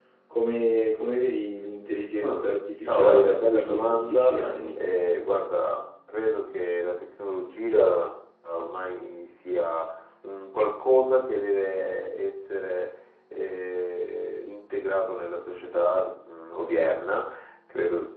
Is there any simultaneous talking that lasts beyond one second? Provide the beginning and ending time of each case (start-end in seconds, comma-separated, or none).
2.8-4.3